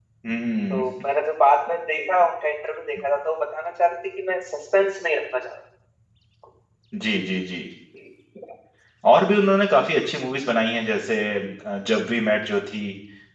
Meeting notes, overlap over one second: none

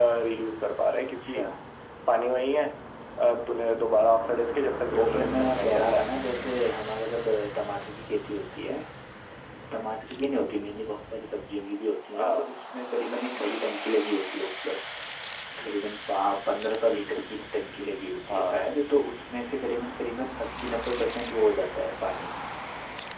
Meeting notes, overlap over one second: present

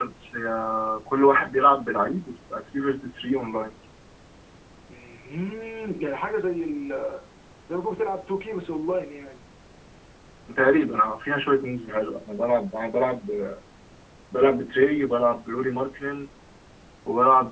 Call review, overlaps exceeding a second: none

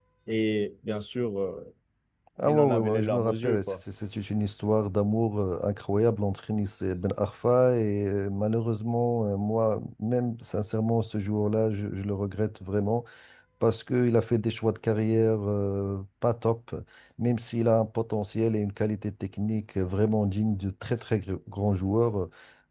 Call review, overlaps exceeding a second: present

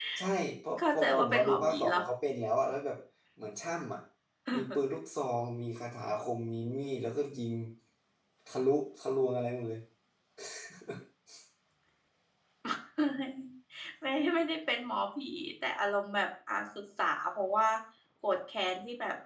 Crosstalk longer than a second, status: present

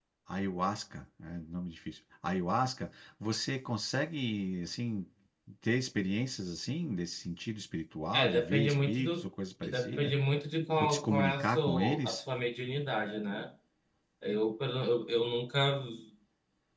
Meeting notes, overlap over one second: present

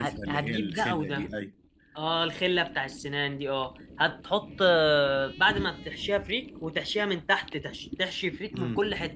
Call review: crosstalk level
present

